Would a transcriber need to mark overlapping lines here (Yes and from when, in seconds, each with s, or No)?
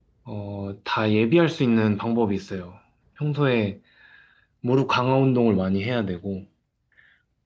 No